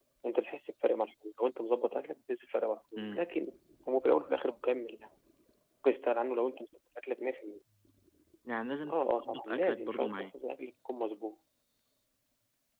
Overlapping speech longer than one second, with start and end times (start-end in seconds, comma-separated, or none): 8.9-10.3